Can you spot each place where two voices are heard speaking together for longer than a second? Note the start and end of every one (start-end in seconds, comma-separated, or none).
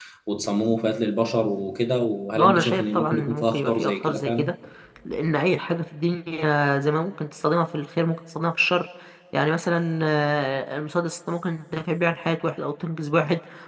2.4-4.5